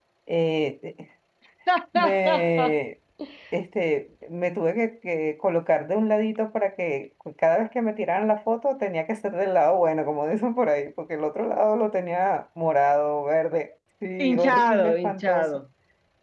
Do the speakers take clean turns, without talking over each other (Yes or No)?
No